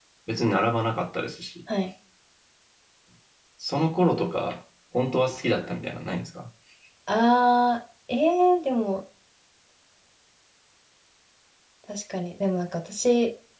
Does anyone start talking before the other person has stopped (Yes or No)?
No